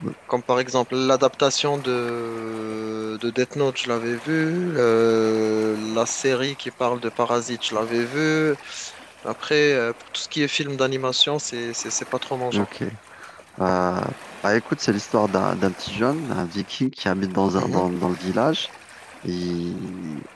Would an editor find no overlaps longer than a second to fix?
Yes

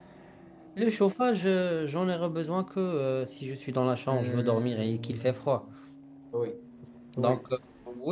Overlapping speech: Yes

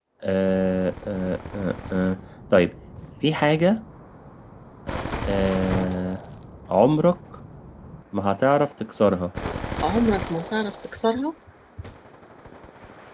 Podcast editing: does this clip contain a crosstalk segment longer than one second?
No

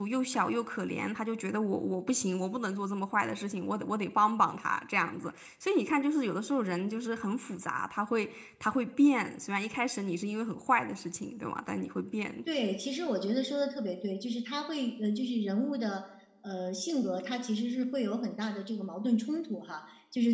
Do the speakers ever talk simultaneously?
No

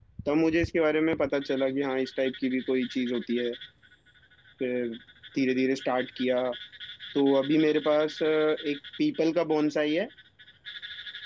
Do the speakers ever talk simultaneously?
No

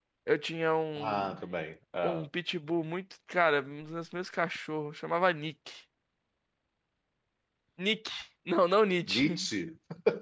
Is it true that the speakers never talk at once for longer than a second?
Yes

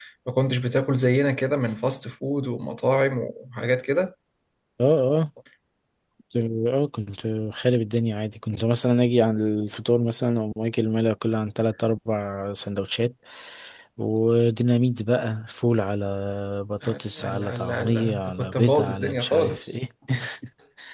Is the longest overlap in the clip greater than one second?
Yes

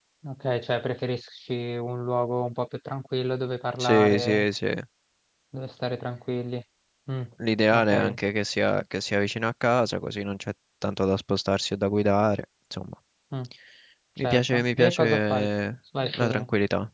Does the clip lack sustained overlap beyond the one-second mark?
No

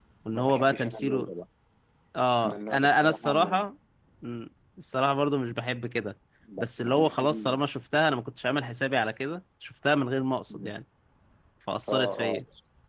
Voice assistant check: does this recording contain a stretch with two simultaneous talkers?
Yes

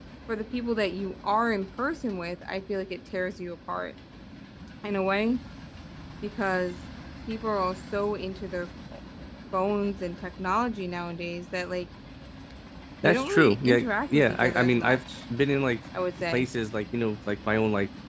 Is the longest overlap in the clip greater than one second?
Yes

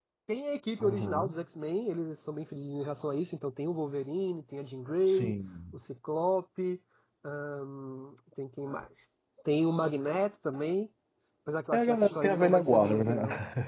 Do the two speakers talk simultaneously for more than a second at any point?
Yes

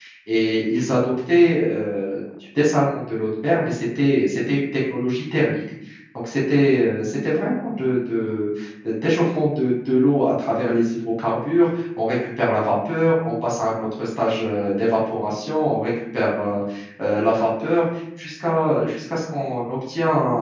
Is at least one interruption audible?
No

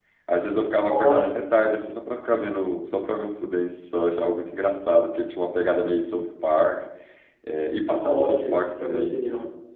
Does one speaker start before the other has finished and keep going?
Yes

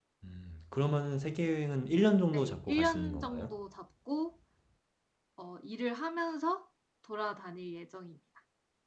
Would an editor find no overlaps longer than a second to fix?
No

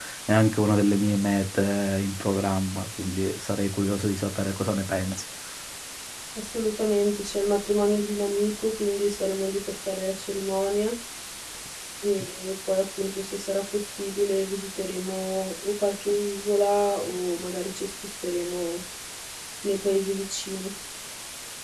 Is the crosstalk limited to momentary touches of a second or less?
Yes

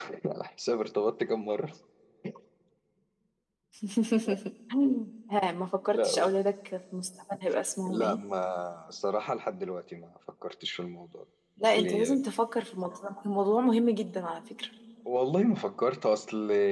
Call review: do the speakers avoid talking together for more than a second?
Yes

